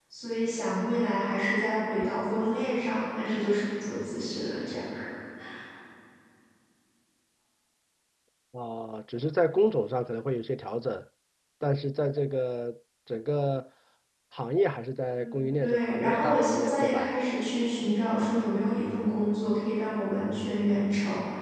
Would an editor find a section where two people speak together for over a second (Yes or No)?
Yes